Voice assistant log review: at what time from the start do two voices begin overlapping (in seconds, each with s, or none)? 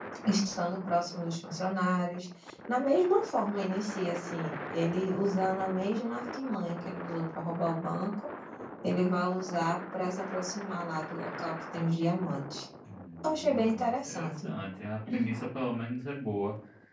13.2 s